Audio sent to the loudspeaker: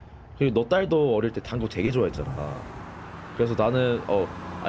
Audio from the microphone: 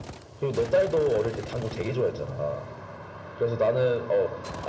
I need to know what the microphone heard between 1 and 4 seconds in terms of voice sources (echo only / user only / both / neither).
echo only